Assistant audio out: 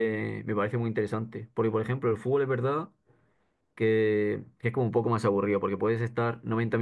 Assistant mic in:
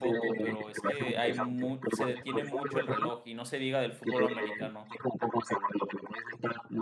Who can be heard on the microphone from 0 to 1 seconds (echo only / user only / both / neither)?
both